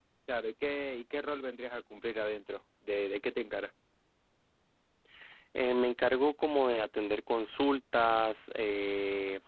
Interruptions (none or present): none